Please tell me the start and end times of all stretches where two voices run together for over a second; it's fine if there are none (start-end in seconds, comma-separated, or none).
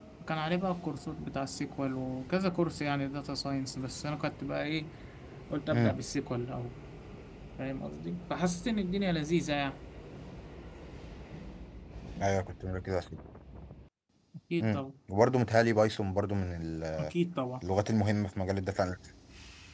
none